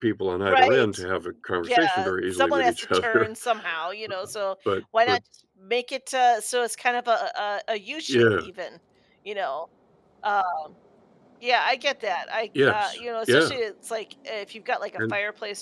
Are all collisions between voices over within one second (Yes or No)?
No